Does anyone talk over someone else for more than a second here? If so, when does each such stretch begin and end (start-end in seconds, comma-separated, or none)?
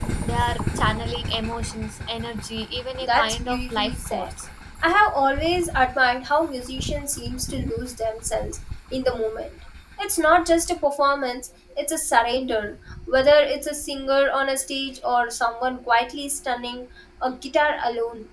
3.0-4.3